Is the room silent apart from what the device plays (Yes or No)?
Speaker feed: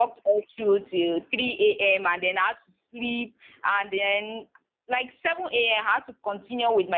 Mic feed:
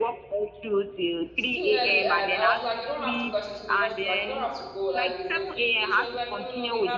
No